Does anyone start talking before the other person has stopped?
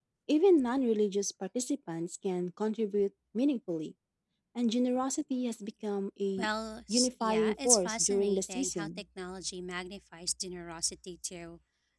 Yes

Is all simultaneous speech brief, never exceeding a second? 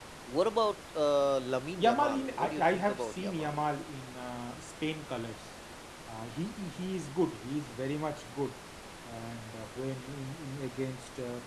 No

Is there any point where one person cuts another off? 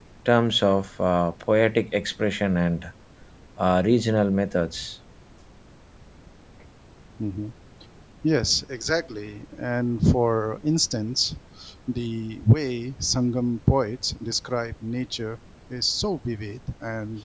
No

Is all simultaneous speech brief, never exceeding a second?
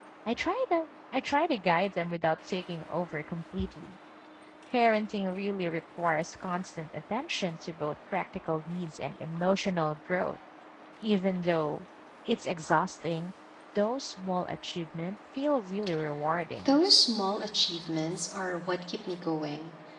Yes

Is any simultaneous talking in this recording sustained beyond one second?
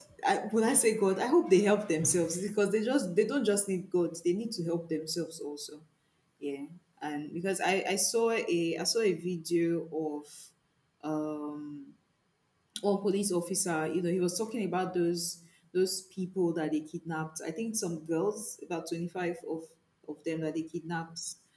No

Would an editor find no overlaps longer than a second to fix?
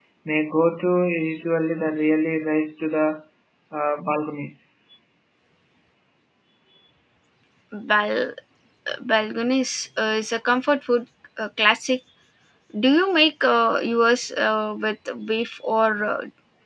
Yes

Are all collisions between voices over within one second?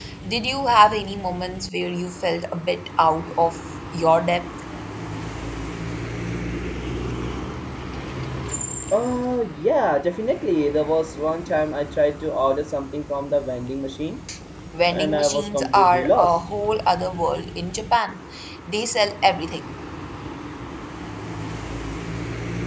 No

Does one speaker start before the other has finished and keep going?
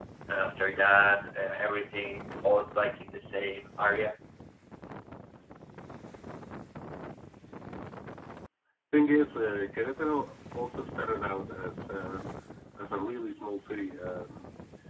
No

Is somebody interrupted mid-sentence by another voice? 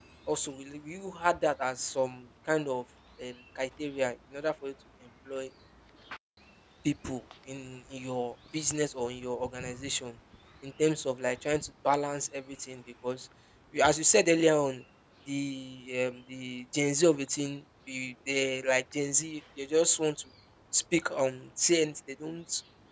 No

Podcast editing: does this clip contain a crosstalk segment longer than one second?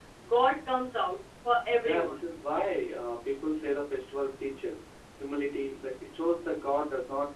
No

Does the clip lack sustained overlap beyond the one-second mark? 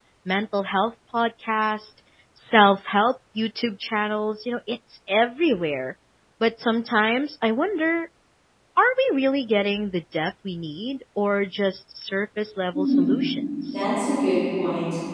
Yes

